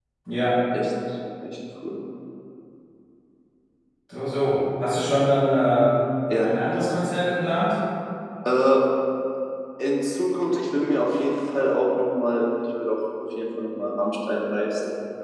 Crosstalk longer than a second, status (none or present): none